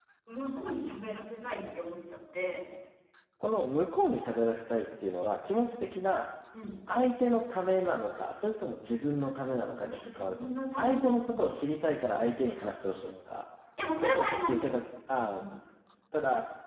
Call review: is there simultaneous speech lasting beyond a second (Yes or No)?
Yes